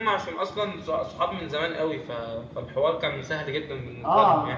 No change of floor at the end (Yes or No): No